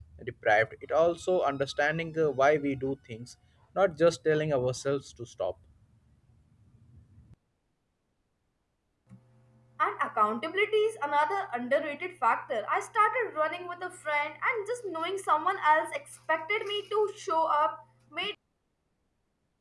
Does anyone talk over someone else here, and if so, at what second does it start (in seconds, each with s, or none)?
none